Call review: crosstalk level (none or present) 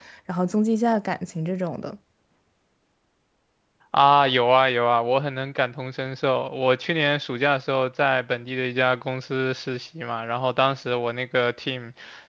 none